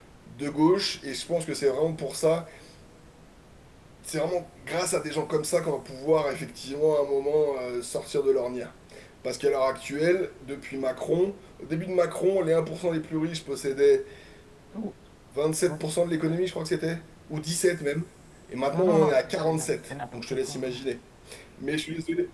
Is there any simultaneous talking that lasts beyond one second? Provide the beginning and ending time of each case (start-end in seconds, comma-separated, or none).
18.7-20.8